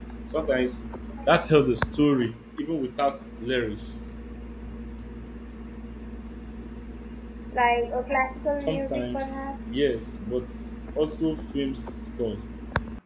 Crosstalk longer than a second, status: present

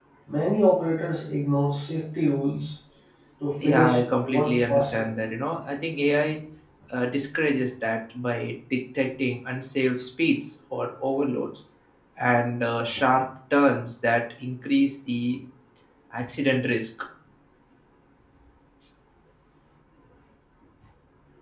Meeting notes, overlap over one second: present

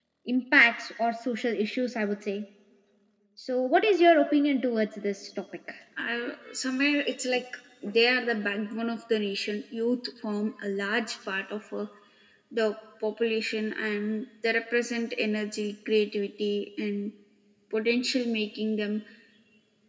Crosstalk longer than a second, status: none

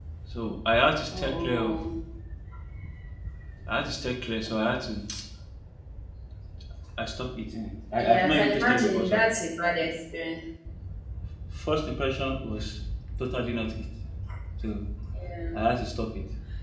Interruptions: present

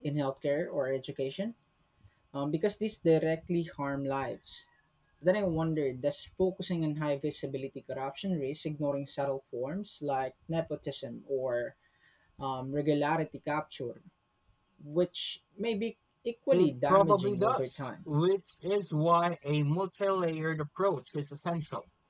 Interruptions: present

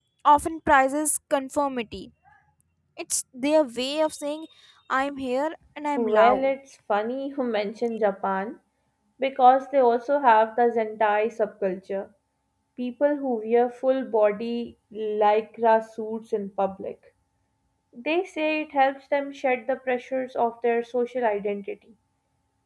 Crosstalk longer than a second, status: none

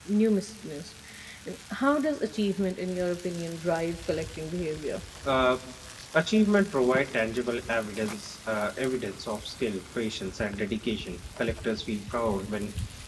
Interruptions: none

